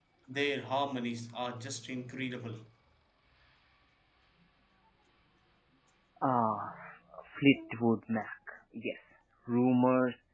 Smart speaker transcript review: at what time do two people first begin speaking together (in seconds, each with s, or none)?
none